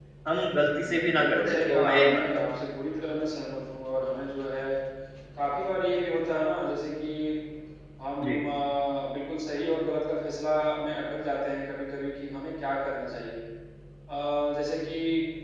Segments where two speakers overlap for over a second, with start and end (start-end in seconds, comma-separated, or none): 0.8-2.5